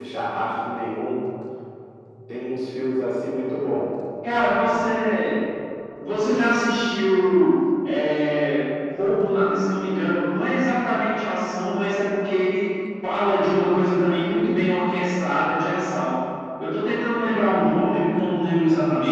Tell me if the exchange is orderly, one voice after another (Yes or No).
Yes